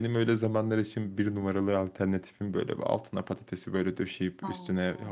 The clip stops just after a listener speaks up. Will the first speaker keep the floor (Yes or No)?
Yes